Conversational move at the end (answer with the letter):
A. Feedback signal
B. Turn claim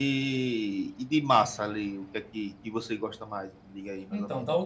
B